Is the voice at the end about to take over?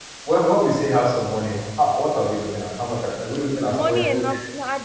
Yes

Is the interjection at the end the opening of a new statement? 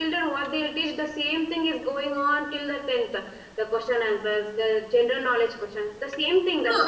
Yes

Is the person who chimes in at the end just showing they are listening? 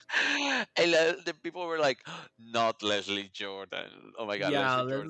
No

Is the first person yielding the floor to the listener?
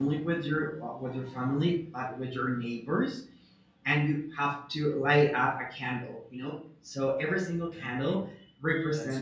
No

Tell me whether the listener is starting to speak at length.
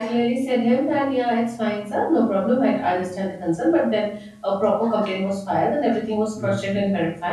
No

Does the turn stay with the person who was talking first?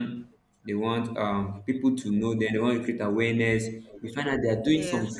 Yes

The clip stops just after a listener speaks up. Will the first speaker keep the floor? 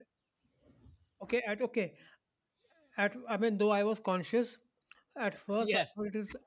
Yes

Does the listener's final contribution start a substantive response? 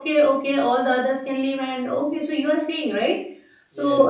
No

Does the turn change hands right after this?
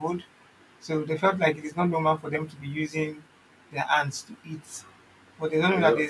No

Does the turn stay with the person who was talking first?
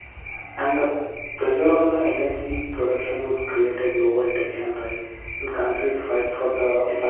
Yes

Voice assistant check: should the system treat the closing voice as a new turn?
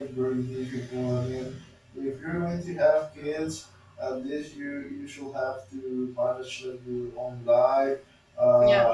No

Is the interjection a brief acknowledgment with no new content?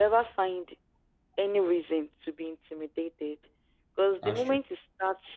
Yes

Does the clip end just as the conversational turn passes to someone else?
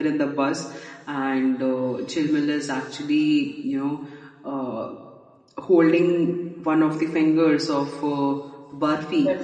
No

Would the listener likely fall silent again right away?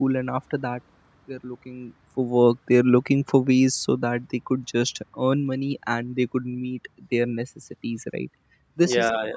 Yes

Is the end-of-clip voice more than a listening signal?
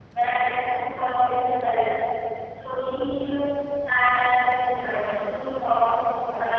No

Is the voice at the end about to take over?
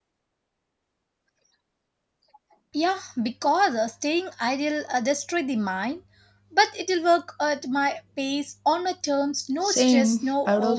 Yes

